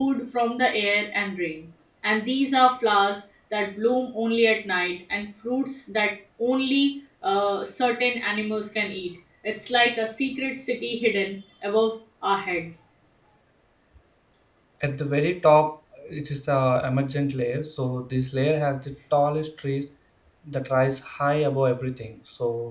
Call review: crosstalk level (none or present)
none